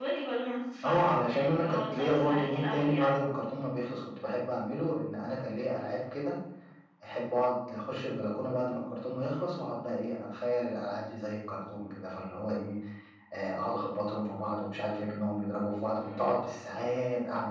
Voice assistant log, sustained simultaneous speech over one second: present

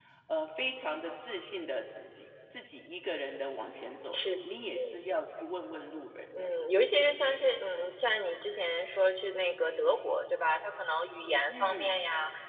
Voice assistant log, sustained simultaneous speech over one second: none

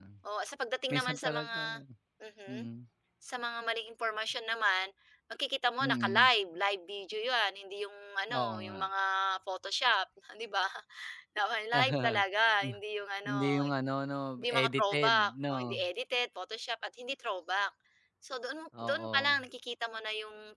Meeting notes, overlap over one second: present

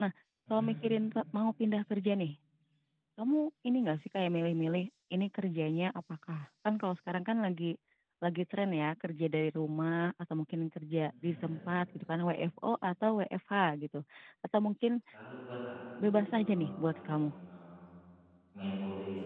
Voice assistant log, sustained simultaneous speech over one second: present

